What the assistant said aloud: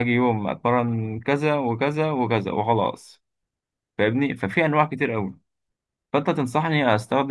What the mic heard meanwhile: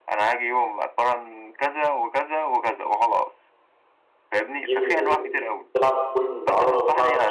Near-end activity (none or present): present